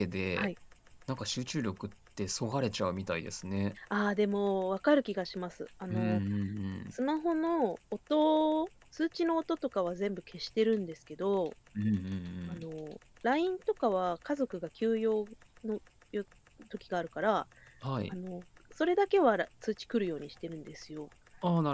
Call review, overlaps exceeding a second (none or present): none